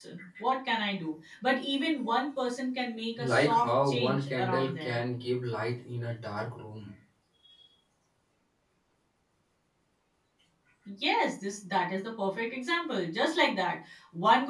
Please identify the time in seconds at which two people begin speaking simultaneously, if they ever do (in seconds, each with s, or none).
3.2 s